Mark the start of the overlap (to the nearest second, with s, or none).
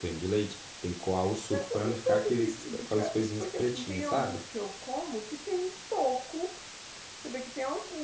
2 s